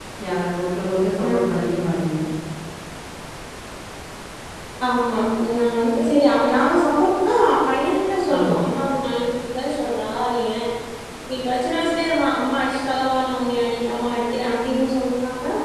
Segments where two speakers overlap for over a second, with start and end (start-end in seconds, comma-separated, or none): none